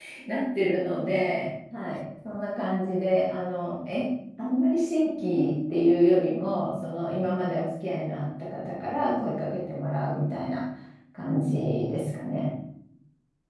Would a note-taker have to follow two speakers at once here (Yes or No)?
No